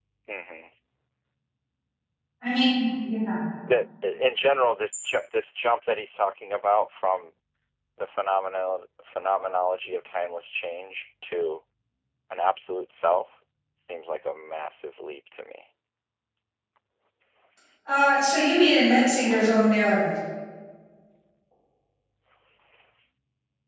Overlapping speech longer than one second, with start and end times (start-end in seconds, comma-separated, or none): none